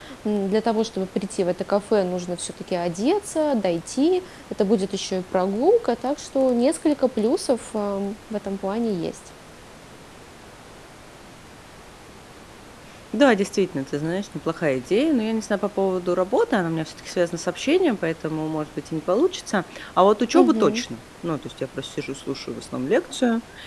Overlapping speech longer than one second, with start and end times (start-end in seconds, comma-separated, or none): none